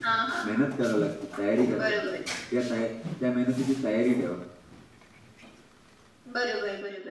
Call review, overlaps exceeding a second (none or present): none